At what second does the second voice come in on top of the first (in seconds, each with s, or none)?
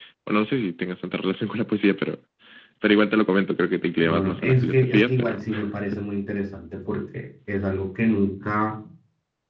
4.0 s